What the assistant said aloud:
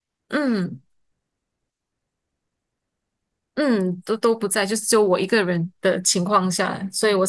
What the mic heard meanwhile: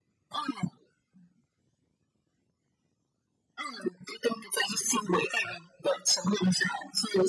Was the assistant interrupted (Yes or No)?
No